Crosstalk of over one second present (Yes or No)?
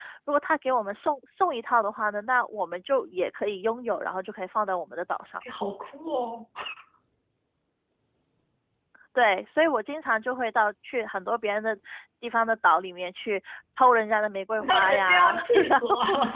Yes